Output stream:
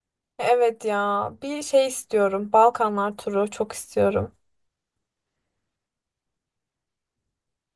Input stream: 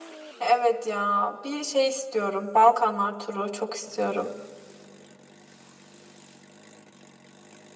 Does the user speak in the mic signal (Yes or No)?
No